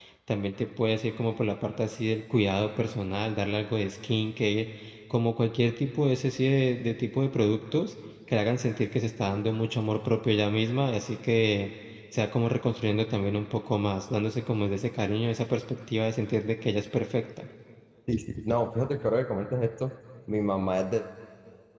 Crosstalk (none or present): none